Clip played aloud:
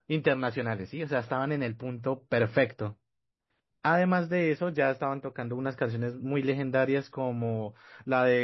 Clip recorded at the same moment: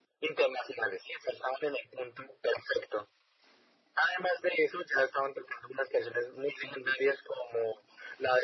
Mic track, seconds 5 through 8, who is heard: echo only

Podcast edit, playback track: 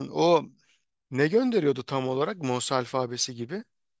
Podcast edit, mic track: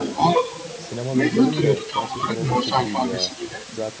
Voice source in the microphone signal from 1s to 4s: both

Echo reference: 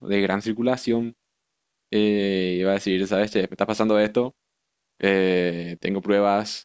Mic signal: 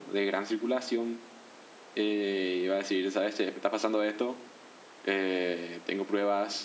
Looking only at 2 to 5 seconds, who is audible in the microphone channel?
echo only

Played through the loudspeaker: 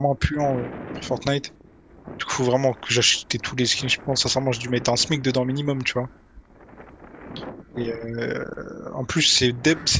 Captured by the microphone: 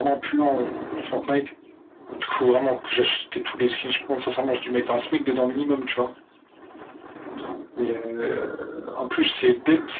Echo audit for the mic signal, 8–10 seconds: echo only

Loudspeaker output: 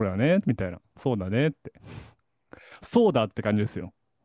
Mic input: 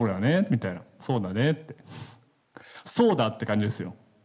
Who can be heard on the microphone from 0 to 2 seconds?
echo only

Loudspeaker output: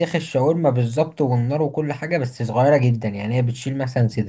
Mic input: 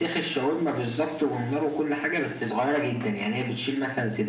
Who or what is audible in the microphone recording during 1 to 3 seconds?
echo only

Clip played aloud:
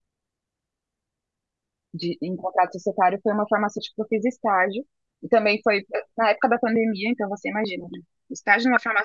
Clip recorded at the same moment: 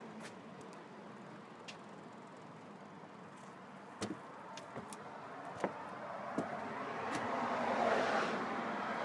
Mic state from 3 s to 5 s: neither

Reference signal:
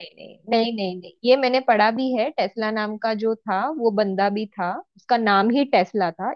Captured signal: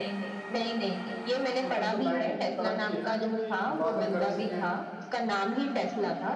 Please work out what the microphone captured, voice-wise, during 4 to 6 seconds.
both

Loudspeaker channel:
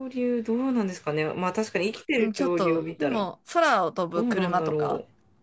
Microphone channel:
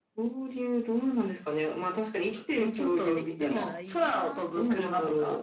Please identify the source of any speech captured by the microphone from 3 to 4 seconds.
both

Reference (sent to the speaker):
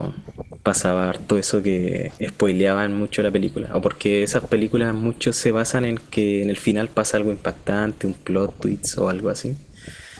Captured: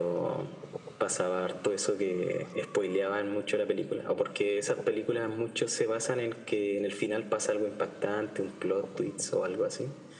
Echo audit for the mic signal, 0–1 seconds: echo only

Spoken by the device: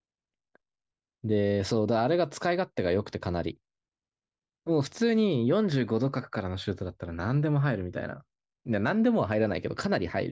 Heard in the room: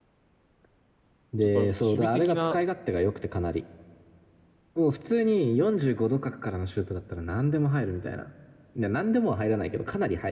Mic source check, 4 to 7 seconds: echo only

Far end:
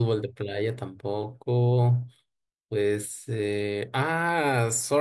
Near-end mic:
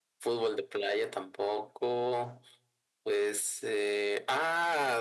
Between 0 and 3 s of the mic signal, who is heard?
echo only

